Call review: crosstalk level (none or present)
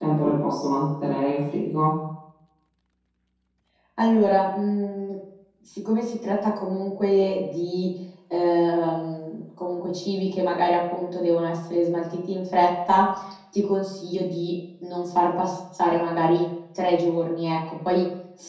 none